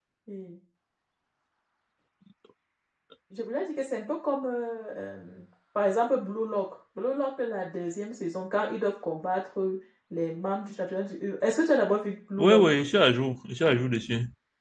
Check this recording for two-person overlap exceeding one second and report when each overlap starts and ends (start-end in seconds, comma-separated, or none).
none